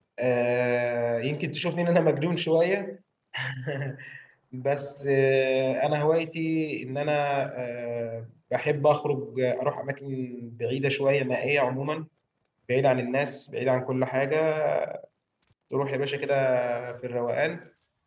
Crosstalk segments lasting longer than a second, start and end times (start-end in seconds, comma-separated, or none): none